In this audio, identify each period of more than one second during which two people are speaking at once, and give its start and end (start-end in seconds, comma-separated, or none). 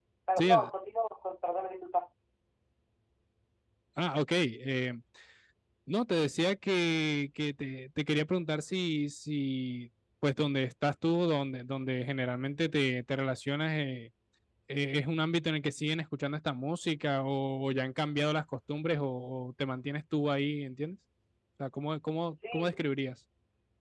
none